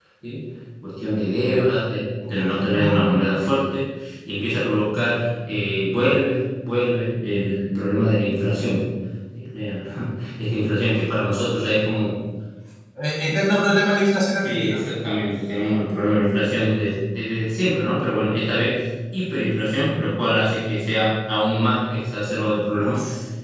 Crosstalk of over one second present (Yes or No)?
No